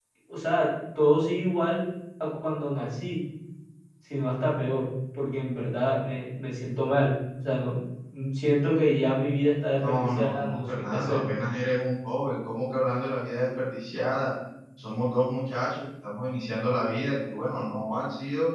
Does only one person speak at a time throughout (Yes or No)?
No